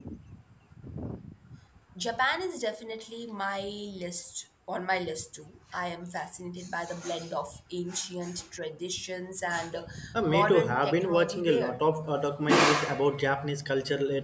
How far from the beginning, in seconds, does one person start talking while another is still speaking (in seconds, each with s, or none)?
10.3 s